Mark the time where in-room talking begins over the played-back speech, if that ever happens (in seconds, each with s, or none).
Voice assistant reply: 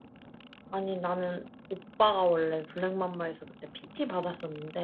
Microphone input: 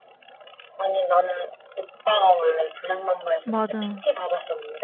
3.4 s